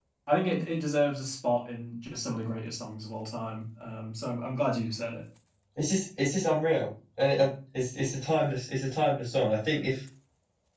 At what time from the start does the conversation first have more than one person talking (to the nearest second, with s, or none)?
none